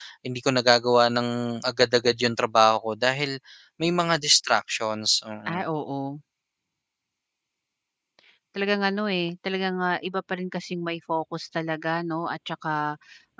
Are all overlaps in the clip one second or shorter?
Yes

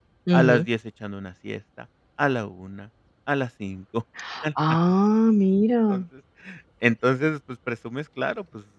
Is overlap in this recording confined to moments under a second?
Yes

